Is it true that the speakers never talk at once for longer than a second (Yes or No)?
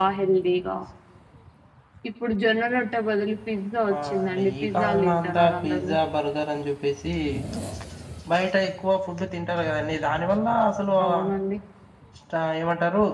No